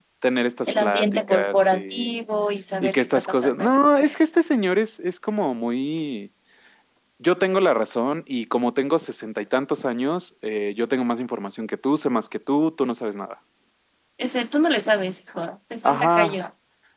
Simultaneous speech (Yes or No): Yes